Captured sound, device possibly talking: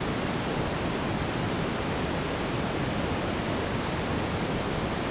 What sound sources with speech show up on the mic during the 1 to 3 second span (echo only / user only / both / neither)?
neither